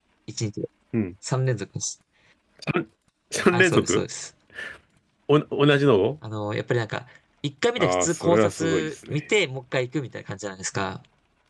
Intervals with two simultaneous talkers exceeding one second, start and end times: 7.8-9.2

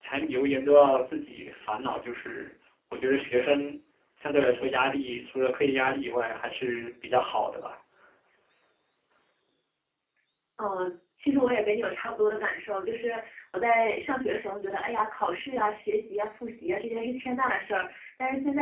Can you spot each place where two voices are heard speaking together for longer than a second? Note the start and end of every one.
none

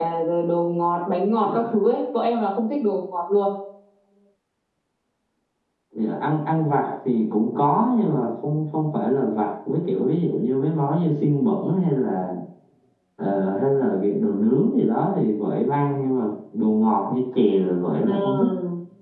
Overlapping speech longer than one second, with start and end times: none

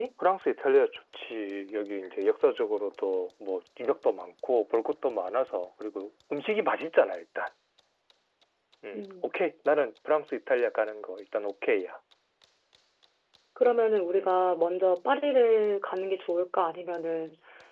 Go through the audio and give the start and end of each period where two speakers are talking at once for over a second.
none

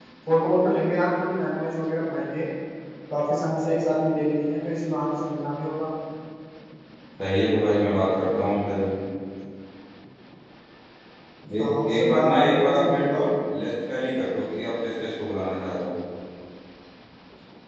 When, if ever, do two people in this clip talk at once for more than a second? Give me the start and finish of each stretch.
11.6-13.2

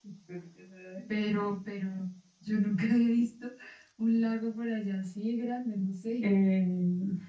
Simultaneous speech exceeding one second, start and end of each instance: none

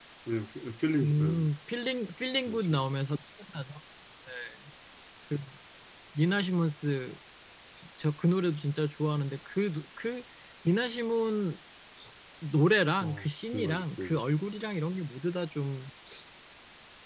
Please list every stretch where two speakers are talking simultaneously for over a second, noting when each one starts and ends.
13.0-14.2

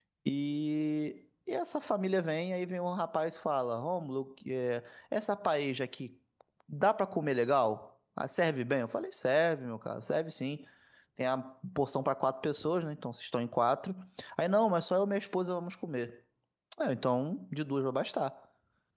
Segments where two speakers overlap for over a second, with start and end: none

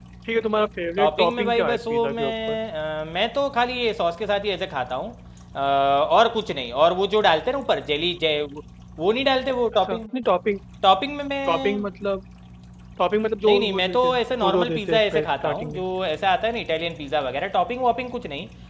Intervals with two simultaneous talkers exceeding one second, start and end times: 1.0-2.6, 13.5-15.8

